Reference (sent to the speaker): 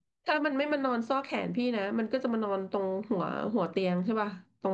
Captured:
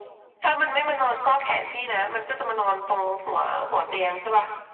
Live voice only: none

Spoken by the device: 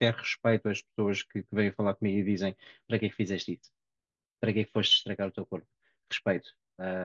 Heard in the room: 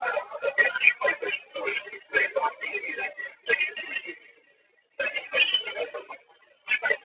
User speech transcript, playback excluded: none

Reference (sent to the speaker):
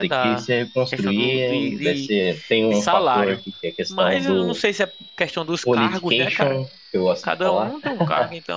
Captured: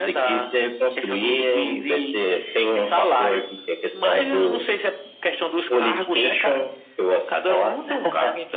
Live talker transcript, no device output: none

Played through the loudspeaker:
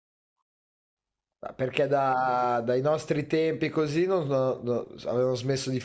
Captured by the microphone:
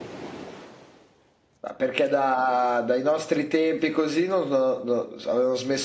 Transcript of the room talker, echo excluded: none

